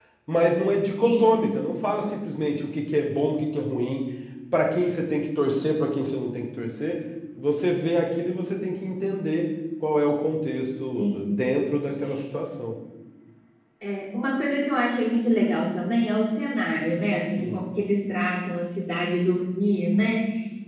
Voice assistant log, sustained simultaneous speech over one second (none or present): none